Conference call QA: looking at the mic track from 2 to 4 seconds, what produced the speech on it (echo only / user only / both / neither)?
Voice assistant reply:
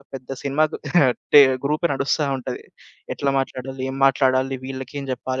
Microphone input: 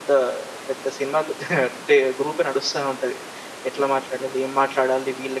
echo only